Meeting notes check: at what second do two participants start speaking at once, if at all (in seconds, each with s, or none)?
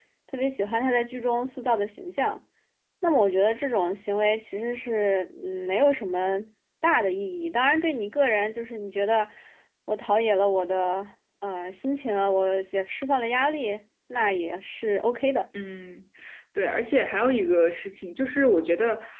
none